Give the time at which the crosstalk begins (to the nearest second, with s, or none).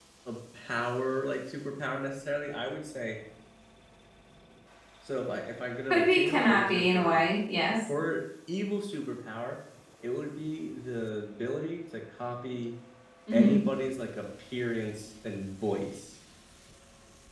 6 s